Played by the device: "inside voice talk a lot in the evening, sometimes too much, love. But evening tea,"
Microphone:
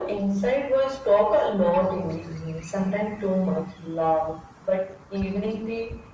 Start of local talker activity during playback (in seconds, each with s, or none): none